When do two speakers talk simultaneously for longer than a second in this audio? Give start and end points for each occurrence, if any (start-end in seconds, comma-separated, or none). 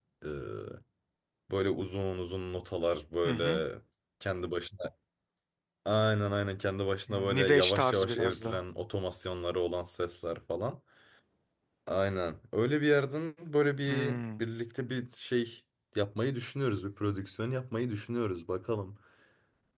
7.1-8.6